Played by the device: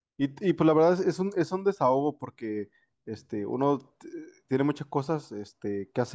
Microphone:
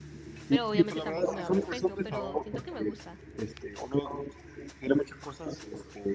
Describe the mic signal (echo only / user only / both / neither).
both